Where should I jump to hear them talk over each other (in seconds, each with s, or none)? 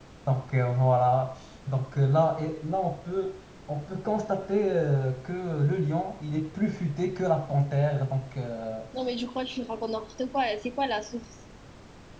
none